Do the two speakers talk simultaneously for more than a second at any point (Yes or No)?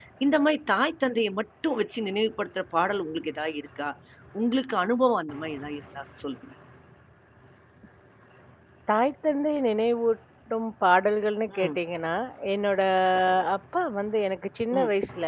No